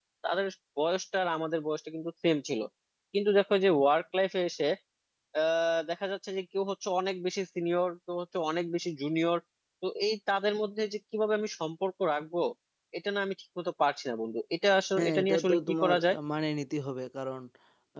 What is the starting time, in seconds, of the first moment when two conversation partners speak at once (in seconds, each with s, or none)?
15.0 s